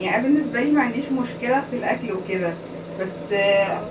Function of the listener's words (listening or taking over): listening